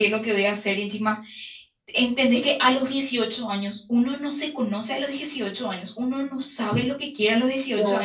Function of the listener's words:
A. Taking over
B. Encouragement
B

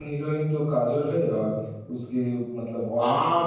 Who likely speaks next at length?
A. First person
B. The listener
B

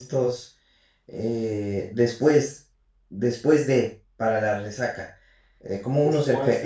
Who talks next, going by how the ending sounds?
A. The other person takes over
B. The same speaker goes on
B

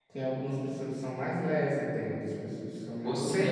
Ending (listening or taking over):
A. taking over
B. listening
A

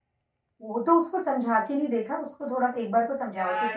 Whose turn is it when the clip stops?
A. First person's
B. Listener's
B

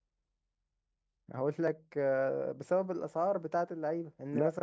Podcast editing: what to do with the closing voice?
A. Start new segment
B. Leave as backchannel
A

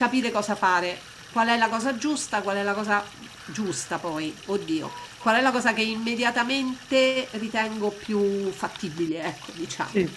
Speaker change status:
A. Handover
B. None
A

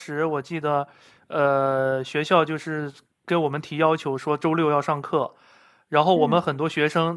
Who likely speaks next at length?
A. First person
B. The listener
A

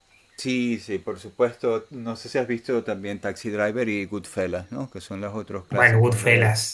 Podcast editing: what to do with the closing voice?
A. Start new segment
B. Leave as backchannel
A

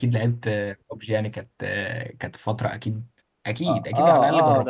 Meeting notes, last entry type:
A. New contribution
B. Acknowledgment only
A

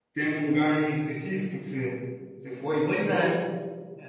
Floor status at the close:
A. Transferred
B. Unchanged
A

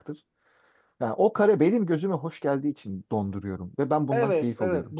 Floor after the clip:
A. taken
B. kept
A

